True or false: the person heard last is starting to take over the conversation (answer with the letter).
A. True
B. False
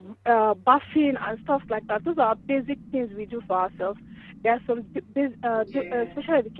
B